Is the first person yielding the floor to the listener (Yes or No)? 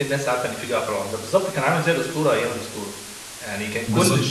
No